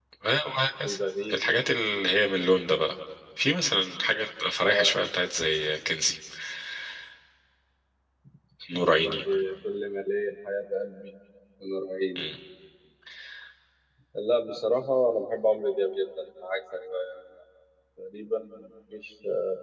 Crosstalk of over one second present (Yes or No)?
No